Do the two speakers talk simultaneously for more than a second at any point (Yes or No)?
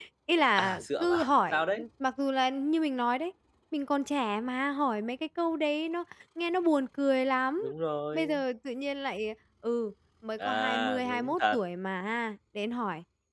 Yes